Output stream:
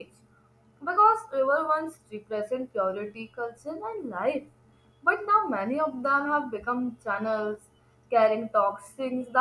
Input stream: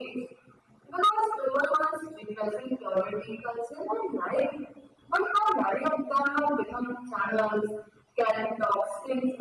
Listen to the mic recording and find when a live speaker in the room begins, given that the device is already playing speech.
none

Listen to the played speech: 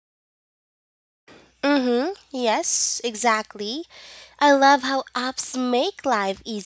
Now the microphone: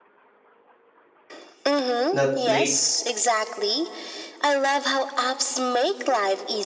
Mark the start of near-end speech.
2.1 s

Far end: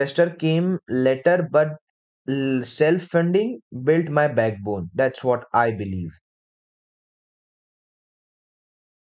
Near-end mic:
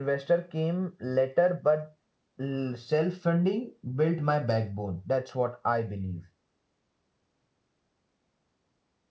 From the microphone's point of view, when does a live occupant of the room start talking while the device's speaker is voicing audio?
none

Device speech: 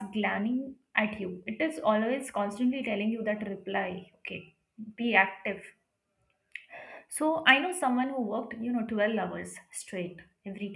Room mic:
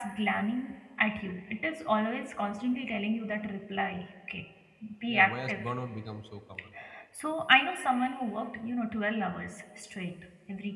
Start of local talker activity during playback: 5.1 s

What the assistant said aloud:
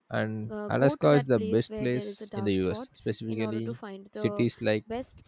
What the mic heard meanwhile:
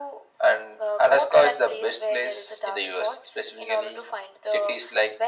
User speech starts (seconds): none

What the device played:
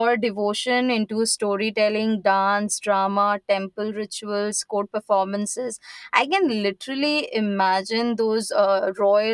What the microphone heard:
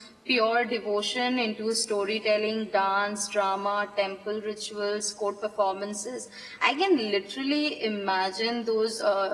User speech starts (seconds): none

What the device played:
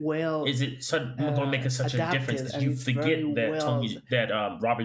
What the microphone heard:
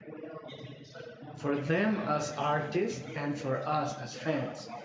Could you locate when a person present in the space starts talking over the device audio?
1.3 s

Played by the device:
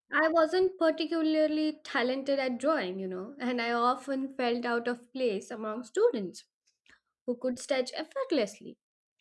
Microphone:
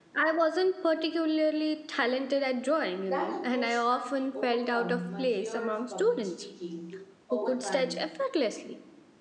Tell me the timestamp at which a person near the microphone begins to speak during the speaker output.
3.0 s

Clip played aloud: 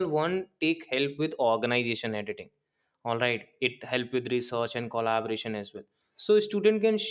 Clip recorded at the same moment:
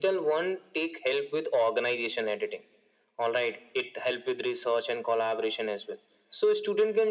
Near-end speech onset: none

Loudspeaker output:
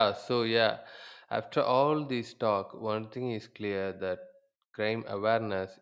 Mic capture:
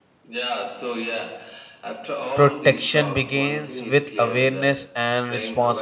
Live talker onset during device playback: 2.3 s

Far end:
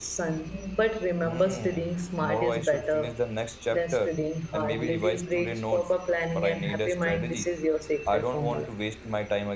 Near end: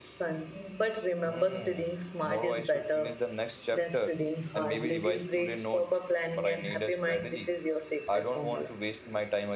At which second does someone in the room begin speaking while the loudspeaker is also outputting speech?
none

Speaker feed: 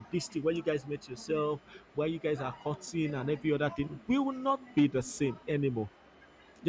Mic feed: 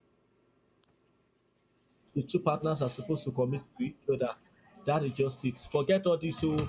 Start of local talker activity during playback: 2.1 s

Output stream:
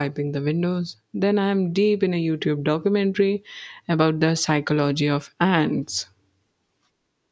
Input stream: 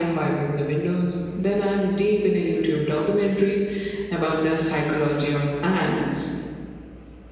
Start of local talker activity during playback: none

